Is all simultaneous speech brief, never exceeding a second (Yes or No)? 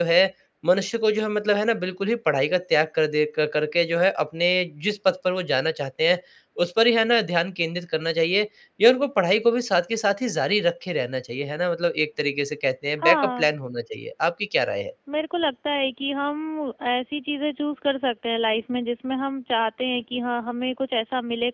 Yes